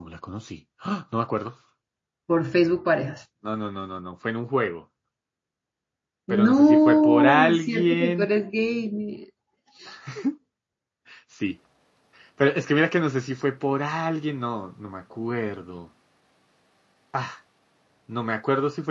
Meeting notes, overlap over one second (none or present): present